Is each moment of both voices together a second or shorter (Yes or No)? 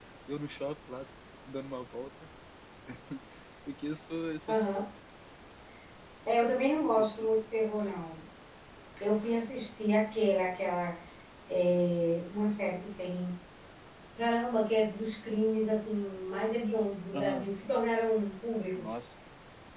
Yes